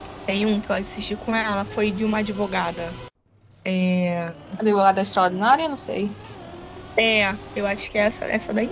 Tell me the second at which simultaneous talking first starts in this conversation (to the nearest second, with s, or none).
none